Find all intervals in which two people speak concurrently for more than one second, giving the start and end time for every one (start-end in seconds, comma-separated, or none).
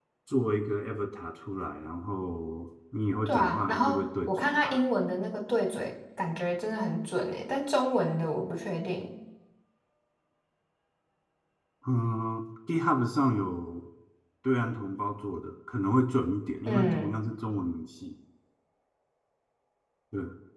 3.2-4.8